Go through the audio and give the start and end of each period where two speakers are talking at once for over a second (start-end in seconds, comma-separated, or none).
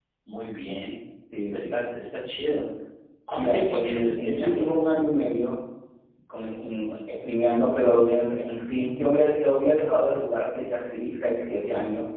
3.3-4.7